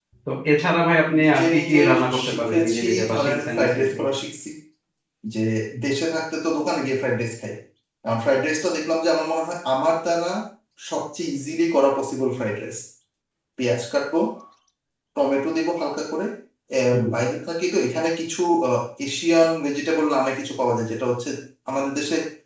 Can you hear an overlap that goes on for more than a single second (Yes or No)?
Yes